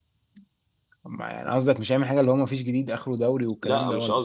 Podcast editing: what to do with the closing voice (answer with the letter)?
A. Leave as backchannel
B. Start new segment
B